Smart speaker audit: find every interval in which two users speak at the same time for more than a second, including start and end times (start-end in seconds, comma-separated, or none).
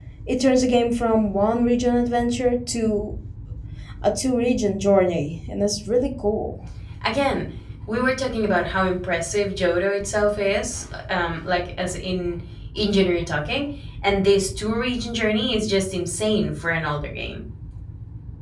none